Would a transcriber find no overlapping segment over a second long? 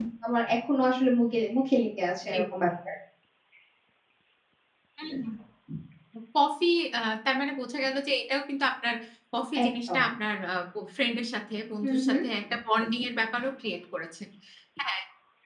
Yes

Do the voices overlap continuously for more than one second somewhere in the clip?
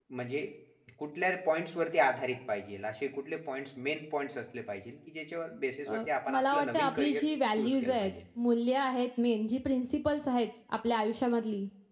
Yes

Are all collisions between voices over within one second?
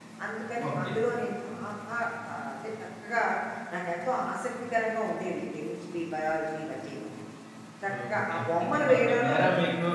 No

